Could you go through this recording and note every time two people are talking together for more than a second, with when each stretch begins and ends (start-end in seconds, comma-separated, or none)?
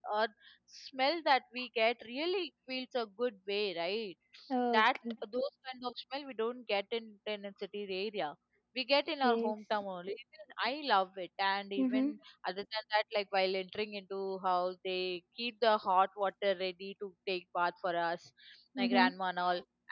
none